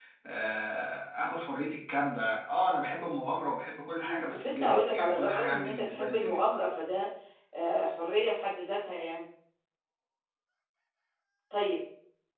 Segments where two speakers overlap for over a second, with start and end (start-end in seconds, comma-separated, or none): 4.0-6.4